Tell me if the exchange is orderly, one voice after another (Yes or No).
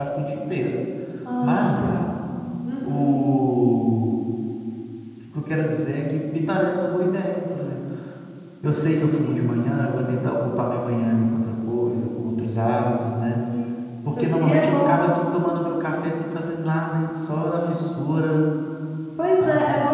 No